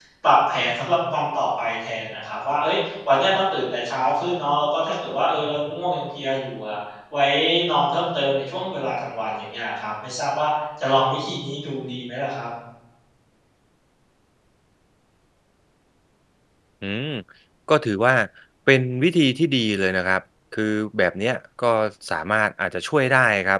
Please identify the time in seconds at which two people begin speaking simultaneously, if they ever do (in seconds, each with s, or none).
none